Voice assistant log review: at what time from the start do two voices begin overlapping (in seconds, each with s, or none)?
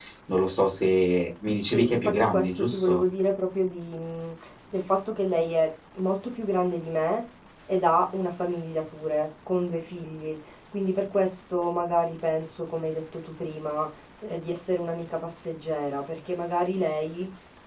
1.7 s